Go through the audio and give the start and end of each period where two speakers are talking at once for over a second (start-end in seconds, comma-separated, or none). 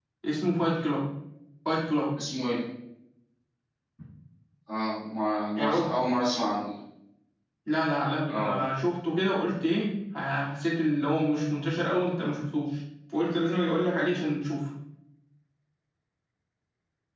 none